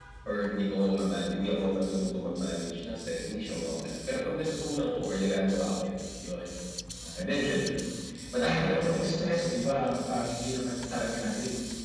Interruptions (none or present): present